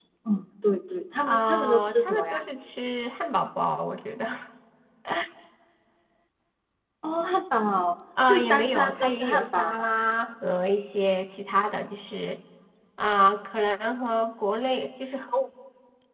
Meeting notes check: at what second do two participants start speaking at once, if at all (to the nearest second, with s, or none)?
1 s